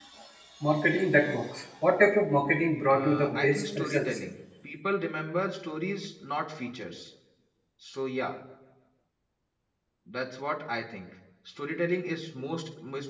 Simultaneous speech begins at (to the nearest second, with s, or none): 3 s